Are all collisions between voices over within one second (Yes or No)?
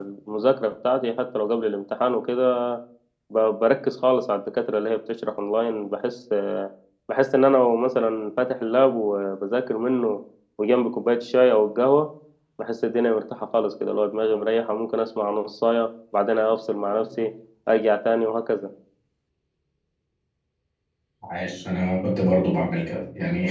Yes